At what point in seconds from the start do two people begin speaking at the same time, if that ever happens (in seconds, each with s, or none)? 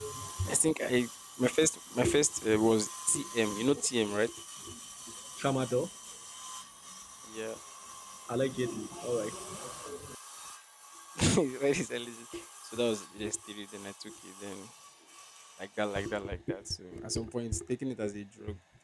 none